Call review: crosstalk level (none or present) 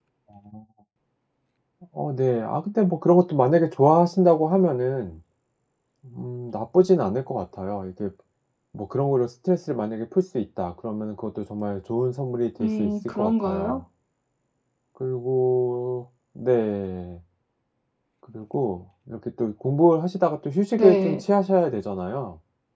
present